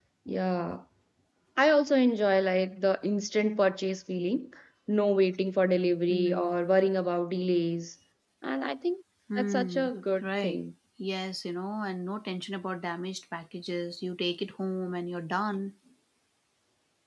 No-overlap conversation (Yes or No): No